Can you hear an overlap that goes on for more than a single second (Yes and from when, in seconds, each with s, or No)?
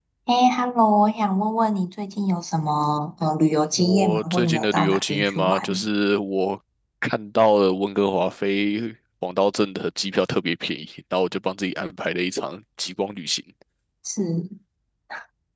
Yes, from 3.7 s